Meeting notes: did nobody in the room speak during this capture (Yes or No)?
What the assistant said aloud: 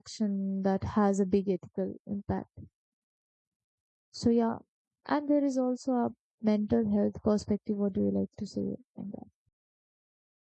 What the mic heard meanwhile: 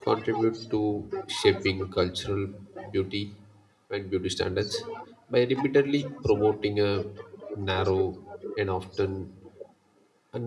No